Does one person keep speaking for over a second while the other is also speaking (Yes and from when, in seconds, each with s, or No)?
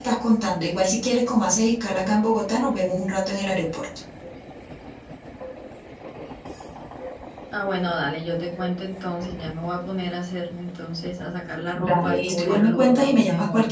Yes, from 11.8 s